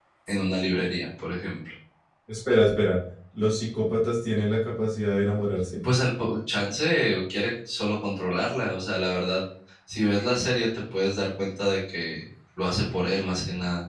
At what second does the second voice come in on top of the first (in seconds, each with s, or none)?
none